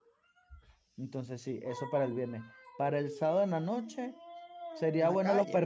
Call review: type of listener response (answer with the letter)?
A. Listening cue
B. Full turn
A